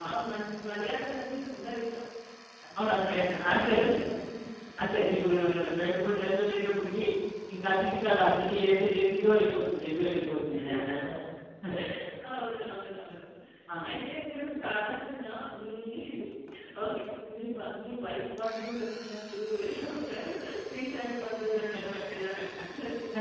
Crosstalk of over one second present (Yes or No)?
Yes